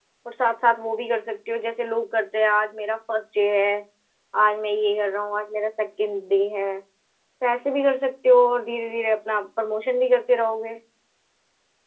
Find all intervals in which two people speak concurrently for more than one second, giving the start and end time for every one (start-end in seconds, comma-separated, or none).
none